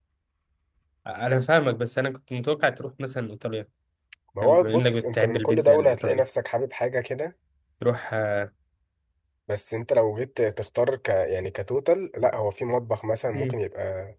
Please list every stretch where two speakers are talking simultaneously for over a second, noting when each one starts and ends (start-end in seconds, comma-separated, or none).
4.4-6.2